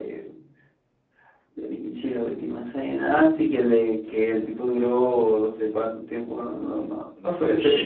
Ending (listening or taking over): taking over